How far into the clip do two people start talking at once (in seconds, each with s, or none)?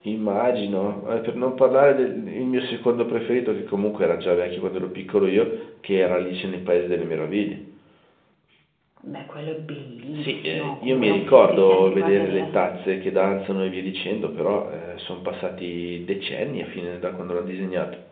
10.1 s